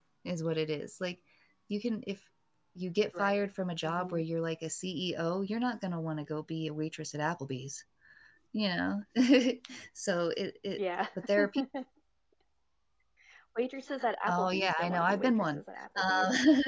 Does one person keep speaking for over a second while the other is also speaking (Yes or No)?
Yes